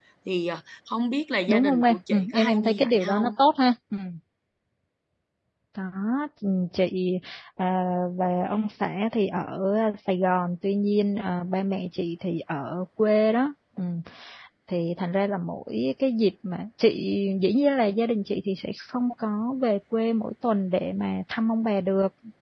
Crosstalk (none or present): present